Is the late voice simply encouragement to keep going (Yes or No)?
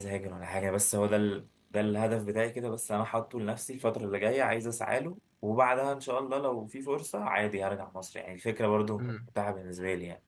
Yes